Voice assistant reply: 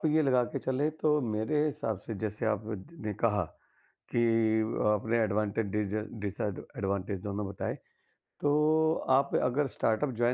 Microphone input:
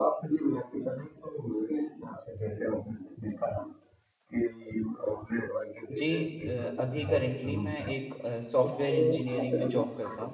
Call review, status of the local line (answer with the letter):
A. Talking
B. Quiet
A